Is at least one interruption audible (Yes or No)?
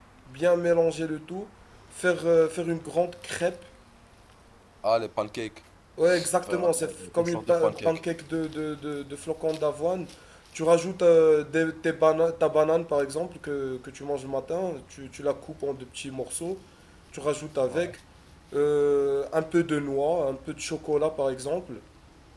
Yes